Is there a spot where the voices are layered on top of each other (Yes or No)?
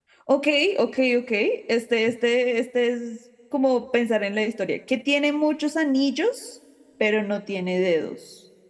No